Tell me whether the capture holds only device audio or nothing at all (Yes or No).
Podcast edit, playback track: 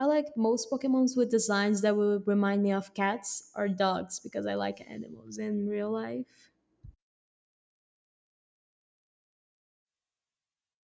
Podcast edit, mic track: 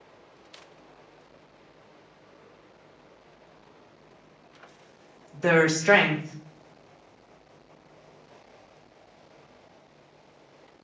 No